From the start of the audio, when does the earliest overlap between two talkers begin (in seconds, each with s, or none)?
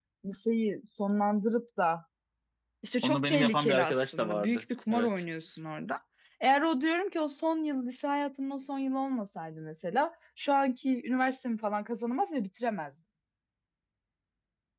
3.0 s